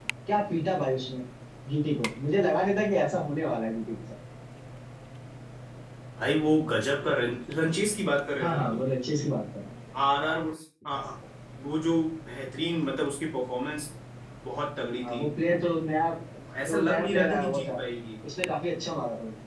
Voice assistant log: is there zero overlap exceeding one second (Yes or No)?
No